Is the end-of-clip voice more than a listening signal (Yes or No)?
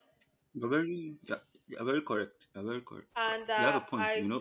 Yes